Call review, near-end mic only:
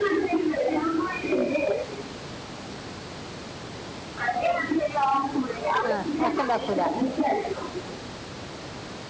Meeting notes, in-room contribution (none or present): present